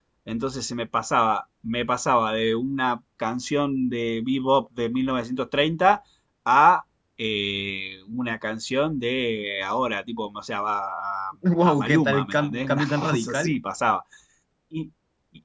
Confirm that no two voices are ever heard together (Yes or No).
No